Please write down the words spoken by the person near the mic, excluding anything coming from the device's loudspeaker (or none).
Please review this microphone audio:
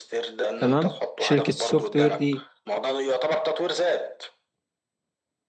تمام شركه السوفت وير دي